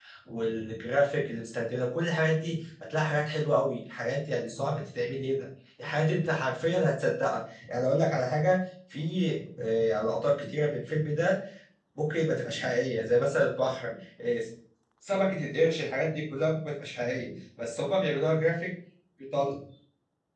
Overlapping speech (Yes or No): No